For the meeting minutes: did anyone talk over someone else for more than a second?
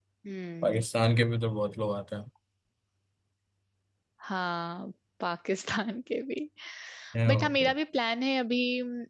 No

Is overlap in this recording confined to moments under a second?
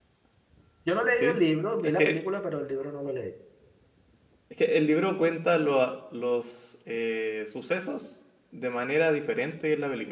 Yes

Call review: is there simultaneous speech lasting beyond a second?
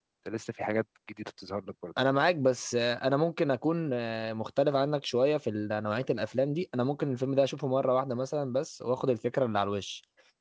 No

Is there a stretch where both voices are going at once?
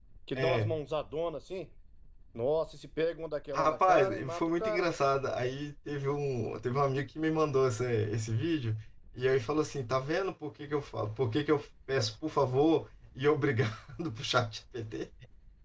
Yes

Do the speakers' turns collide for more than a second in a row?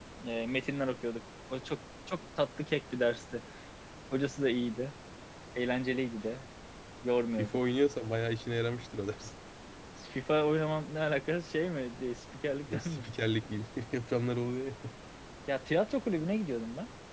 No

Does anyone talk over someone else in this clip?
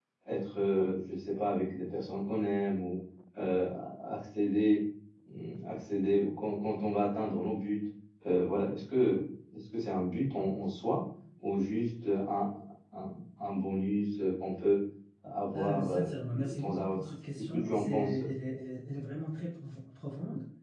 Yes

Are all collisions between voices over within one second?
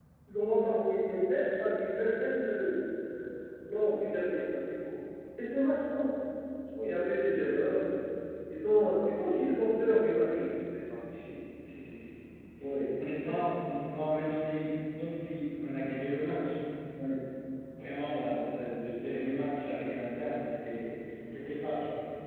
Yes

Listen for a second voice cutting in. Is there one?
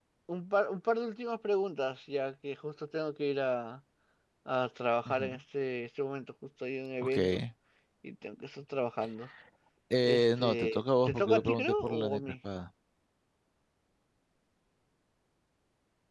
Yes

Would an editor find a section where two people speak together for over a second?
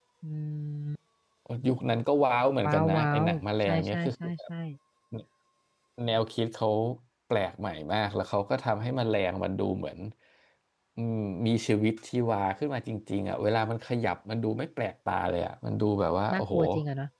Yes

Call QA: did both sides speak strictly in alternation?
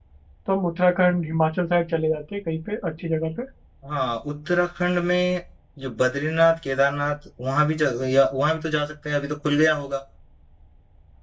Yes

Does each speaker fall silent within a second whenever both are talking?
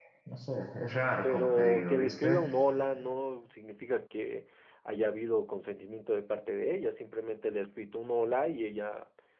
No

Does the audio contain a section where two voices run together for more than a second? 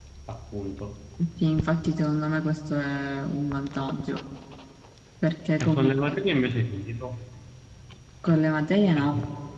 No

